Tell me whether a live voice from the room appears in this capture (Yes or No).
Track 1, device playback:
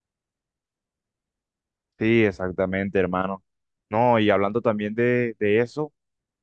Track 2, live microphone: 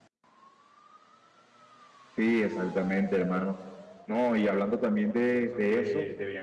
Yes